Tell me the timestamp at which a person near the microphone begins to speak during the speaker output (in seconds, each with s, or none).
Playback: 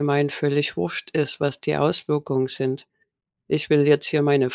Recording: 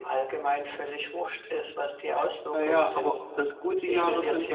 2.5 s